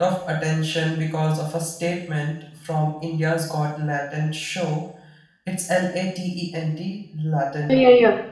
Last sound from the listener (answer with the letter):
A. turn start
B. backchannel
A